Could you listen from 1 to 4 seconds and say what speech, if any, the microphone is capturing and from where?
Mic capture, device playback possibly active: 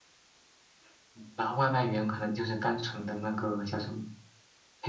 echo only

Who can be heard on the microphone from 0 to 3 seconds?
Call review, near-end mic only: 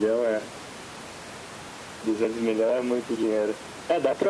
echo only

